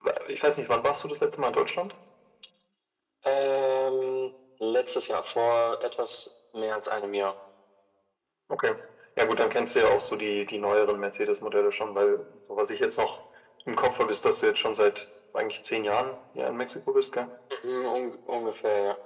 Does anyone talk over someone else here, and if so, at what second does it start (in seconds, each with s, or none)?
none